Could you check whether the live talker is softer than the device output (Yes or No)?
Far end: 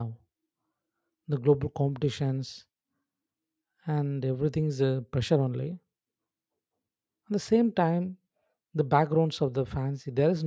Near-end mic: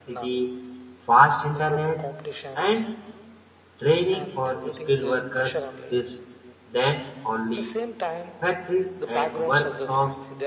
No